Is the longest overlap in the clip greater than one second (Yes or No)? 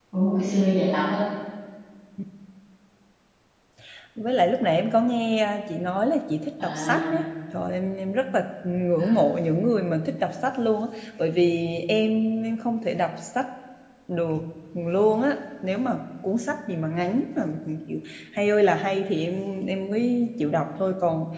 No